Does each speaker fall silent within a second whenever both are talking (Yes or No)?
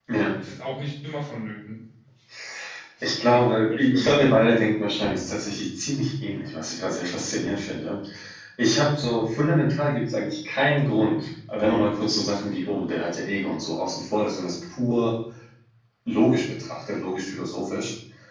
No